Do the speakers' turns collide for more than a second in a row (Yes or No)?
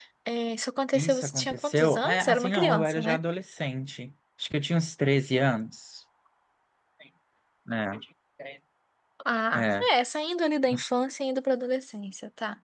Yes